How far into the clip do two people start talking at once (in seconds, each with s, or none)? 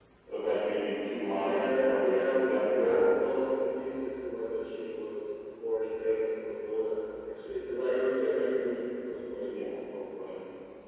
1.4 s